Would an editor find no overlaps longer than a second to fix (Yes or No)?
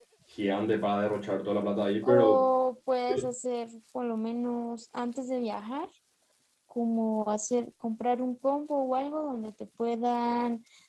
Yes